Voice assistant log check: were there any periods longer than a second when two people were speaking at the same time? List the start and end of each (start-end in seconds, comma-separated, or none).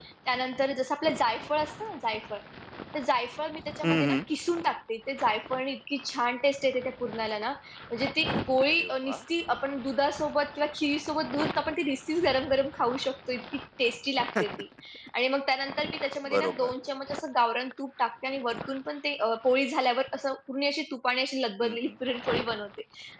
none